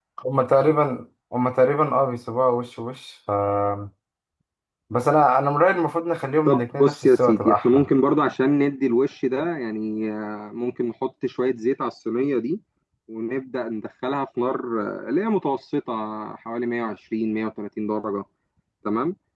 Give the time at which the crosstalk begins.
6.5 s

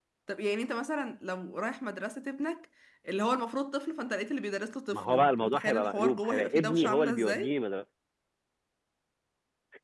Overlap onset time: 4.9 s

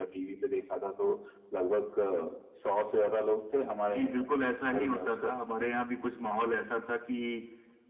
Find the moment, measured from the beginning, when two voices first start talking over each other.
3.9 s

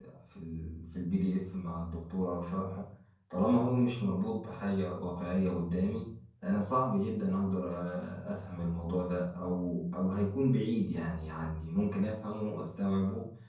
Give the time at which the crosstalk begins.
none

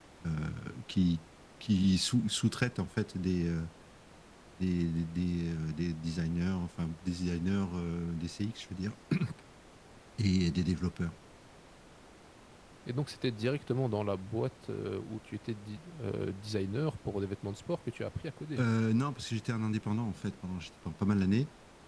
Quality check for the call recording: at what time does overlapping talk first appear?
none

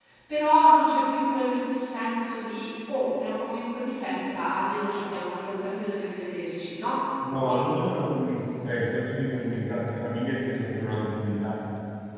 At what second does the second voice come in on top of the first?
none

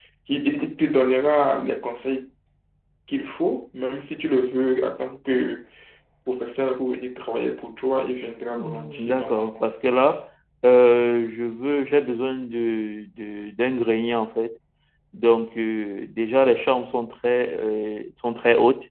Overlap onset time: 8.5 s

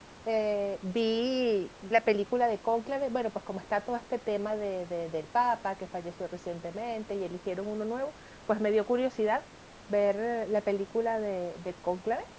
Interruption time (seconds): none

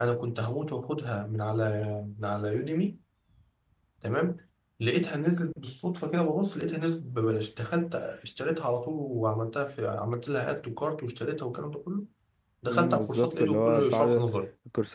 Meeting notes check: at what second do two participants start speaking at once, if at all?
12.7 s

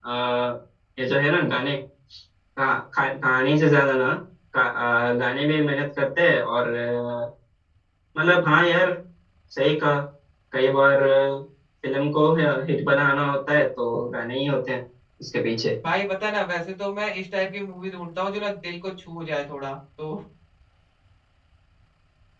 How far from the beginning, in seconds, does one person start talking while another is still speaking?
none

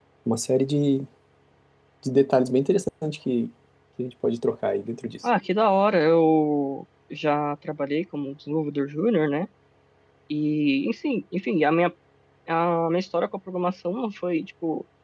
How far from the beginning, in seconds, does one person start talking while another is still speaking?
none

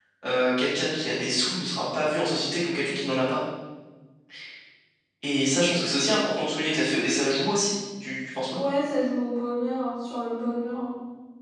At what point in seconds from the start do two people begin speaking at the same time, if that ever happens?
none

